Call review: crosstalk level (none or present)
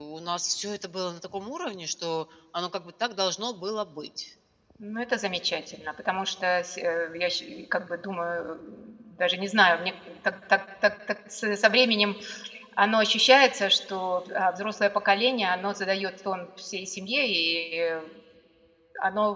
none